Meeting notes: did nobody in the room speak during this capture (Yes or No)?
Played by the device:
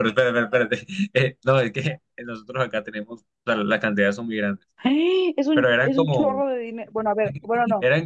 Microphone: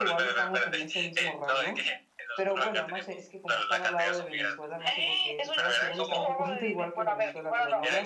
No